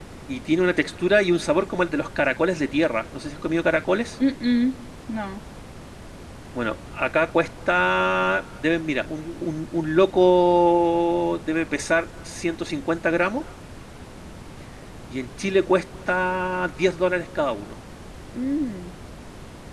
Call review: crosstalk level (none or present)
none